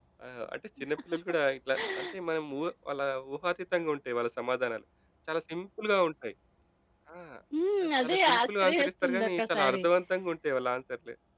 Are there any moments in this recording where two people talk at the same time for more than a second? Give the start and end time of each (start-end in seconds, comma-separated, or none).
8.0-9.8